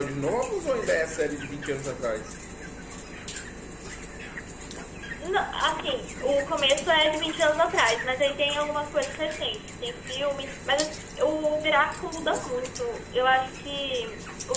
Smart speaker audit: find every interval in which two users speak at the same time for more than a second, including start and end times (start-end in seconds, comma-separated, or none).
none